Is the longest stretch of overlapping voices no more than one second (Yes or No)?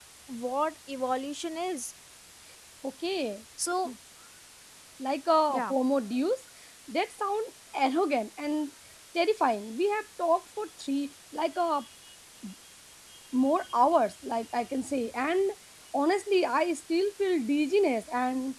Yes